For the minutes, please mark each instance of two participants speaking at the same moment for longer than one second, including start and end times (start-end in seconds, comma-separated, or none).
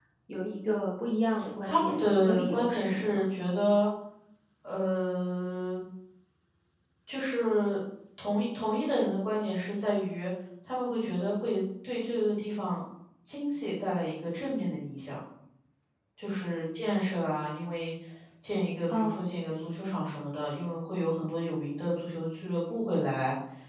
1.6-3.2